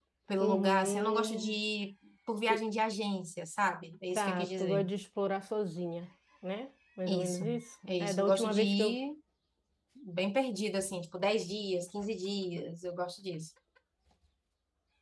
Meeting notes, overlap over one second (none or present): present